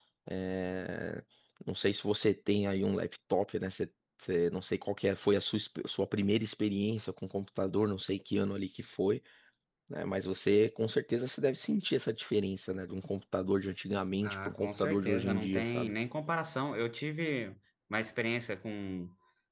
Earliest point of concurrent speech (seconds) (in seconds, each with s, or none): 14.2 s